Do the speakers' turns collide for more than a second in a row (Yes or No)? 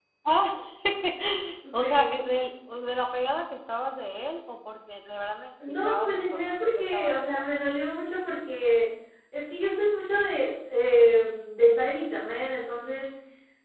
Yes